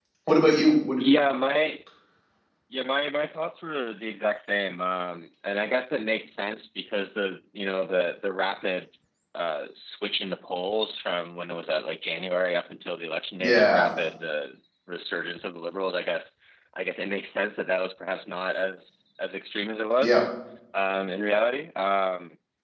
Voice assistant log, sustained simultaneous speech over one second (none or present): none